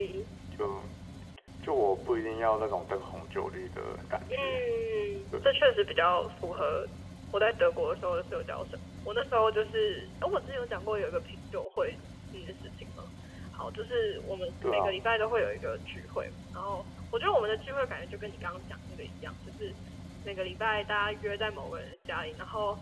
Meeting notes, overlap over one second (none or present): none